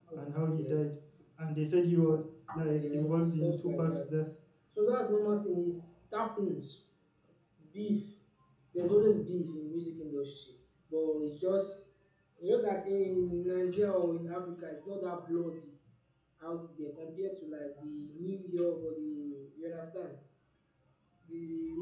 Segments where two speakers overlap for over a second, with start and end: 2.8-4.1

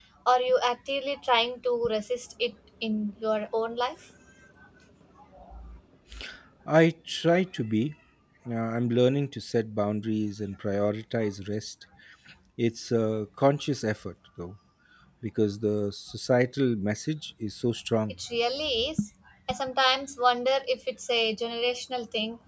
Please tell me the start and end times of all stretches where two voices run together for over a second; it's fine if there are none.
none

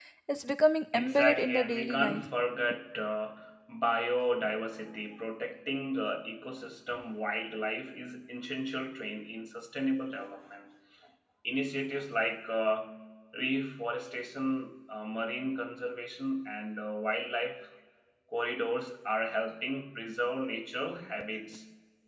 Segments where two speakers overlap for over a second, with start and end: 0.9-2.3

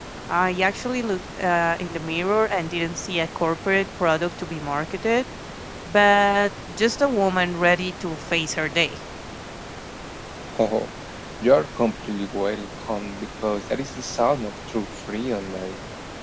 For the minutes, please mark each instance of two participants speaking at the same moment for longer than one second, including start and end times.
none

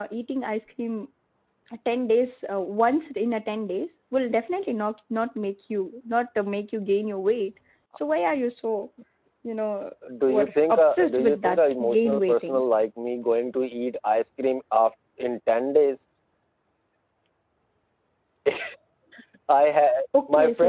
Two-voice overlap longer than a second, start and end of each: 10.3-12.6

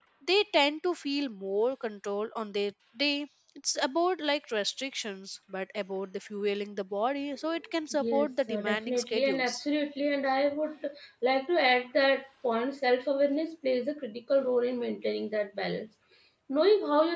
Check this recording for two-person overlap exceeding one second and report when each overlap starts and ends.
8.0-9.6

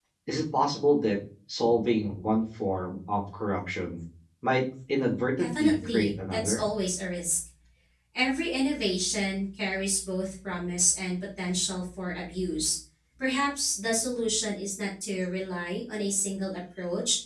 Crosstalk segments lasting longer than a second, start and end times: 5.4-6.6

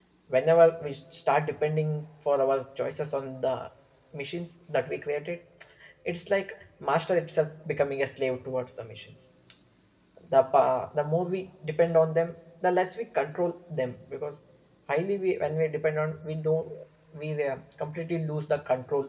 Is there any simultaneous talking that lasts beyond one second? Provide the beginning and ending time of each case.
none

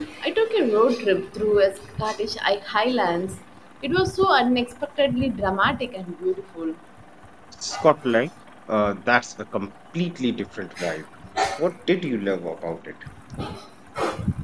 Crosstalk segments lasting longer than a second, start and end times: none

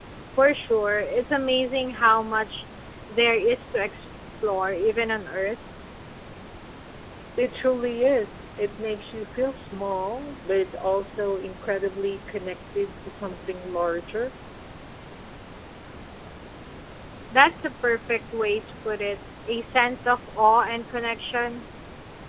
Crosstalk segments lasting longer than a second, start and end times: none

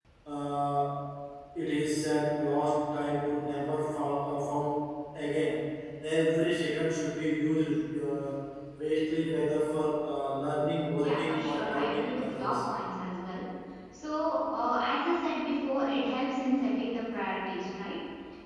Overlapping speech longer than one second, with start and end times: 11.0-12.5

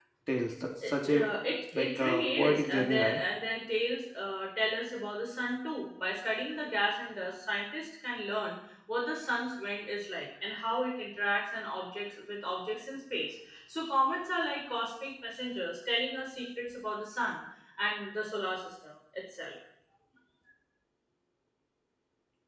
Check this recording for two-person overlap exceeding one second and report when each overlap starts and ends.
1.8-3.2

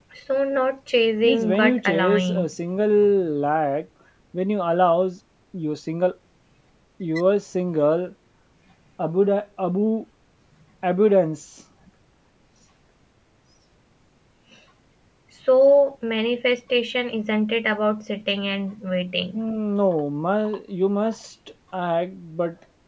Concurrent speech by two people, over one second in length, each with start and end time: 1.2-2.5

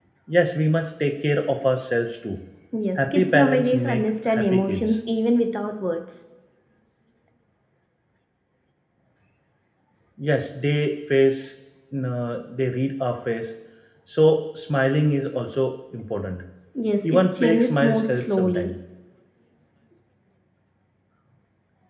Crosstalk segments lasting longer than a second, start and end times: 3.0-5.0, 17.0-18.7

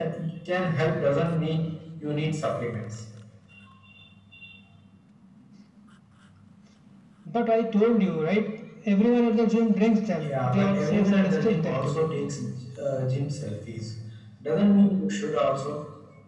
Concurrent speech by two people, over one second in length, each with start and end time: 10.3-12.1

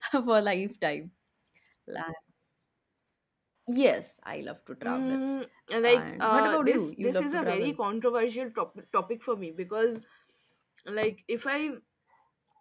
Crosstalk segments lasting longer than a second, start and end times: 6.0-7.8

